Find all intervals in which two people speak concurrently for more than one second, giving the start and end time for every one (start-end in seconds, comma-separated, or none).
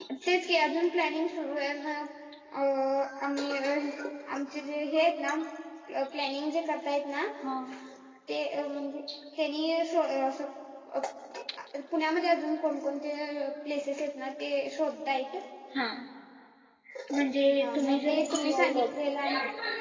17.6-18.9